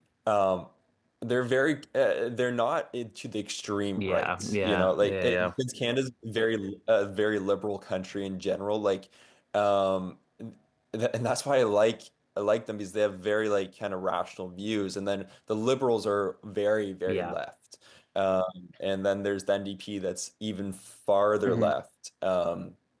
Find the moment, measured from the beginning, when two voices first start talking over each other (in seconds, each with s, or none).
4.0 s